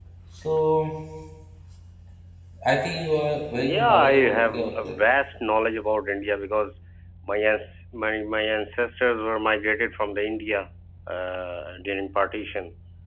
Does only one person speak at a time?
No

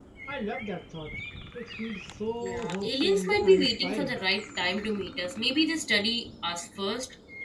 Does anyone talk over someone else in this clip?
Yes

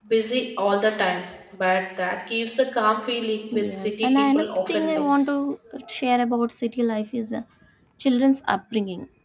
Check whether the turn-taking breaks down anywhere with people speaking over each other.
Yes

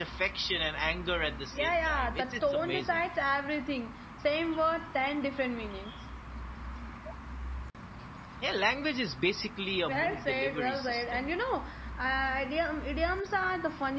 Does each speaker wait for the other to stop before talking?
No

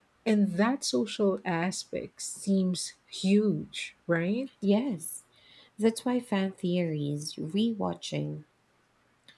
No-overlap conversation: Yes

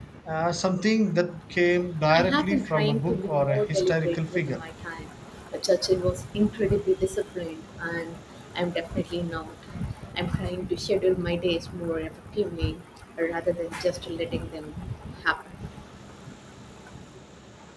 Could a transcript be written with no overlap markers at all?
No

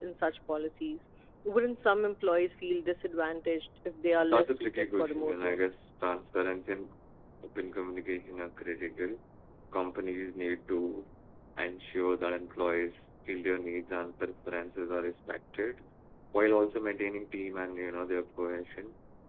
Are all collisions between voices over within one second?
No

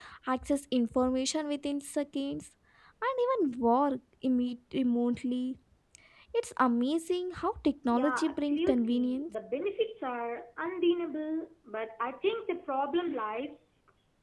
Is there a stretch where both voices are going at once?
Yes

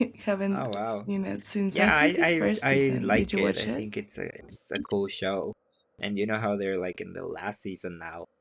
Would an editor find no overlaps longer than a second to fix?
No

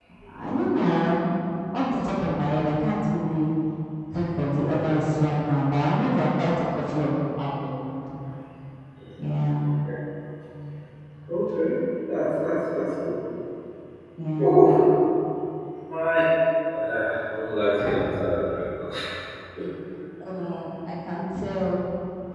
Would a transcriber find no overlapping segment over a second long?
Yes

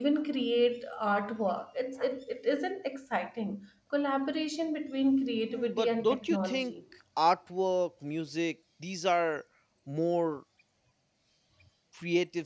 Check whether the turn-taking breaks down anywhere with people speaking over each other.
Yes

